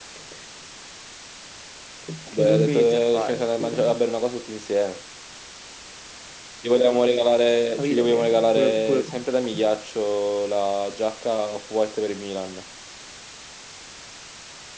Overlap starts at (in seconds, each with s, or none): 2.3 s